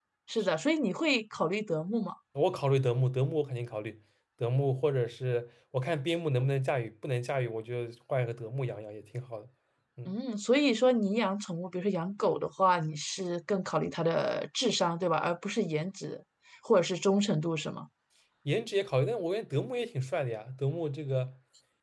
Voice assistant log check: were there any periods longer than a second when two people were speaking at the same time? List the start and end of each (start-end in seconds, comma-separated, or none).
none